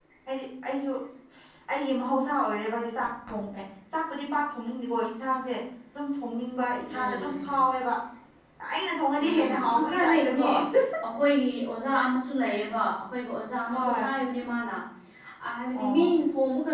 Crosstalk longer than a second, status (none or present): present